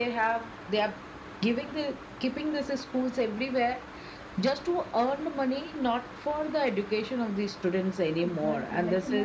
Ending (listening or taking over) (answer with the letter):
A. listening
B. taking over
B